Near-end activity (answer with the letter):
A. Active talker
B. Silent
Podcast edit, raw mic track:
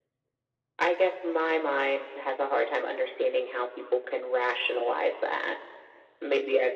B